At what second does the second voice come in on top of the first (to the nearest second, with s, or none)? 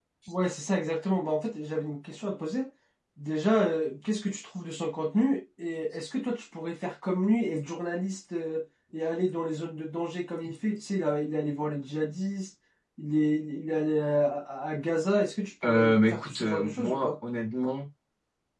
16 s